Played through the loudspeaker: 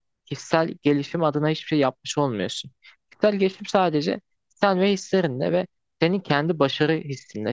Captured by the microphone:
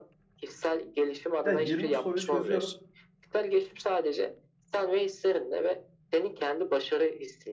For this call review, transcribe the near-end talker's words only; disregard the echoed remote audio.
Ya 20 soruyu çözüyorum.

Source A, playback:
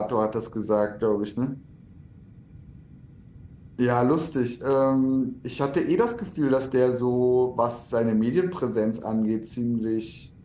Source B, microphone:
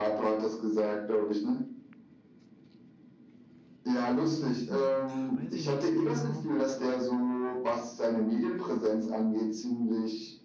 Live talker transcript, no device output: Aber ansonsten, pf, weiß ich nicht so genau.

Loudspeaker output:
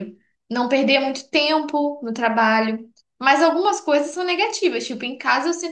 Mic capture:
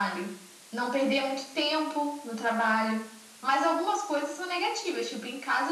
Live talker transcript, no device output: none

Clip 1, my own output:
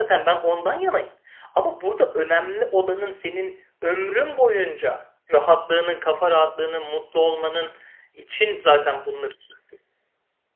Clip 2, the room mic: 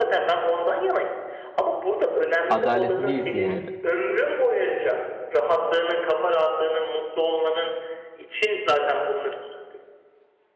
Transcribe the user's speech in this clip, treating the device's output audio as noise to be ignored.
adaletli değilsin yani.

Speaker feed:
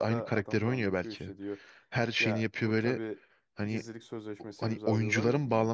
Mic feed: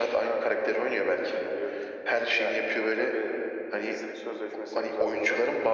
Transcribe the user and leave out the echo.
none

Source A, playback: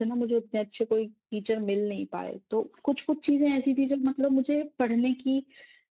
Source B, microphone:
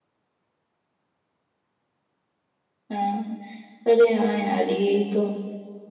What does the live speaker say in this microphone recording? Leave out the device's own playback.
हाँ अरे हाँ यार यही तो

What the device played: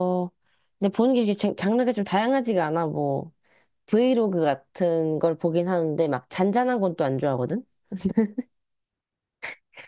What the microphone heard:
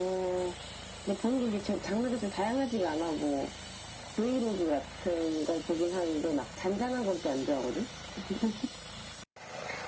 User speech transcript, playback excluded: none

